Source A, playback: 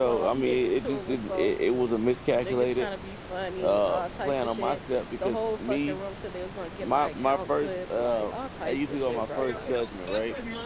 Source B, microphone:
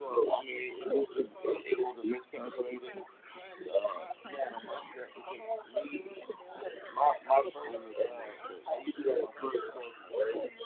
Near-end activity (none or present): present